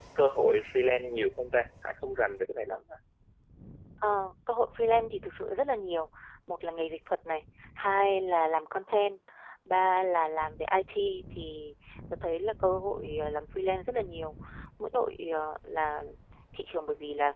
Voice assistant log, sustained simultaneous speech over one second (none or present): none